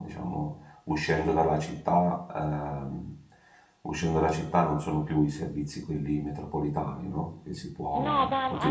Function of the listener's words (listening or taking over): taking over